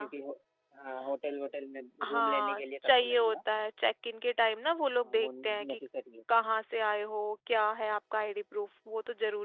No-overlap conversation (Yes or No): No